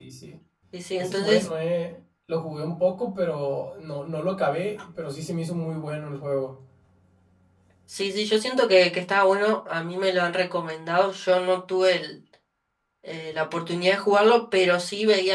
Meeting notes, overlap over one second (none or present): none